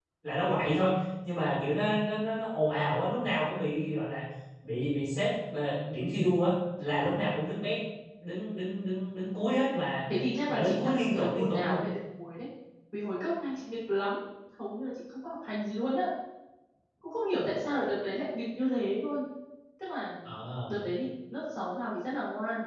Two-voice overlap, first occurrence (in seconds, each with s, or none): 10.5 s